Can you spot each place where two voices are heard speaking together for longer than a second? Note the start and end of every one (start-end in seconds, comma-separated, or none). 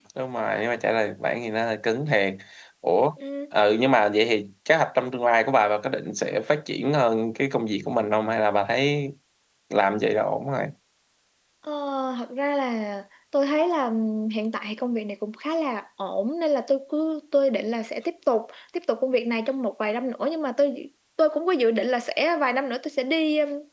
none